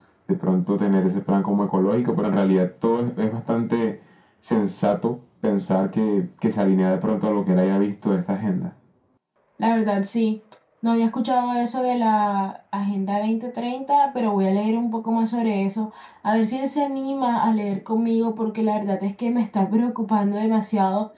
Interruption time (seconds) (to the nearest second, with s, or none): none